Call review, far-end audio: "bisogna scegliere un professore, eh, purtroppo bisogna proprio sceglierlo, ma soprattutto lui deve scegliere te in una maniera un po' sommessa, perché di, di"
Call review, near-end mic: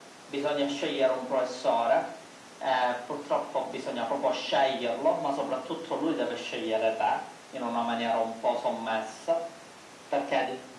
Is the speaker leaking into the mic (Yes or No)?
Yes